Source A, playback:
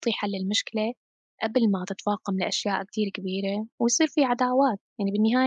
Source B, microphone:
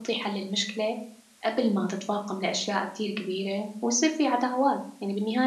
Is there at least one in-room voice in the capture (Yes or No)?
No